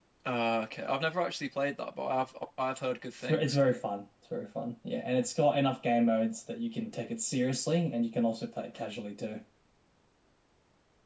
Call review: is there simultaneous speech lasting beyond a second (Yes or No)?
No